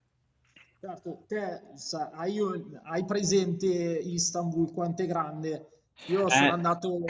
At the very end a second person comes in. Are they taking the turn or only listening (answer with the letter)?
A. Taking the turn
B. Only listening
B